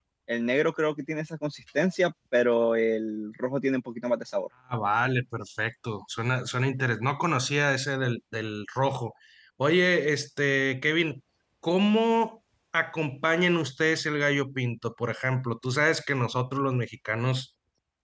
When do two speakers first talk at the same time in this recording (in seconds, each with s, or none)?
none